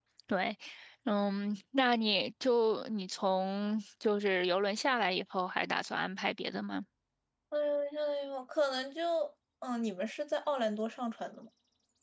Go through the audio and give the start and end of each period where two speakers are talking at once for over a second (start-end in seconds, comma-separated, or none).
none